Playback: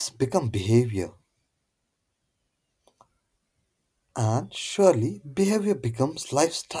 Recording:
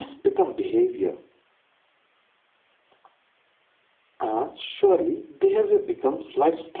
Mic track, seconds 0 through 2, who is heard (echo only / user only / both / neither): echo only